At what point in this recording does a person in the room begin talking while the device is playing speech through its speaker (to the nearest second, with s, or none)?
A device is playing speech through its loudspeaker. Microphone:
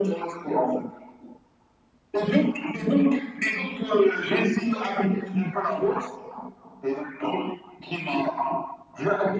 none